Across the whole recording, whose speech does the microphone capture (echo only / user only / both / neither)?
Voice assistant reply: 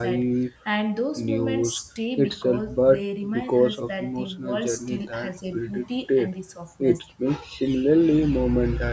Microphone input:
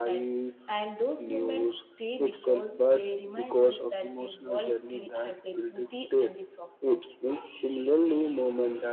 echo only